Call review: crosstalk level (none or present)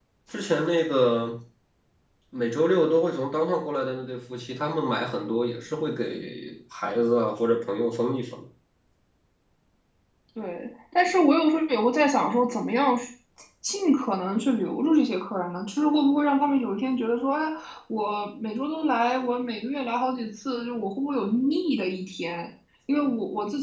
none